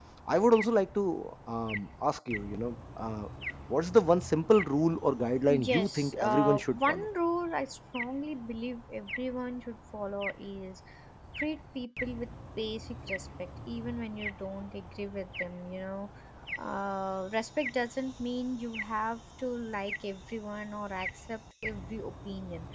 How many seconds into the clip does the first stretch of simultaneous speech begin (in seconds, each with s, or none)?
5.5 s